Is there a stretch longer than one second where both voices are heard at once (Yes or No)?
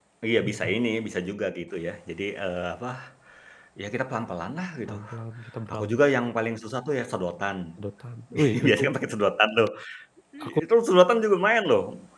No